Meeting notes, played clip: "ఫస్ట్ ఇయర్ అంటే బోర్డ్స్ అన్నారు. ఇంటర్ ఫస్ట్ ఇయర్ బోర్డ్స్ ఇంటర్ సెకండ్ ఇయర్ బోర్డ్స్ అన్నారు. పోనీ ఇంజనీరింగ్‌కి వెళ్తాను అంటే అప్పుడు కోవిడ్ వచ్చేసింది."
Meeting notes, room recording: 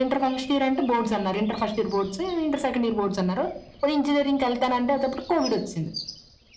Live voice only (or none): none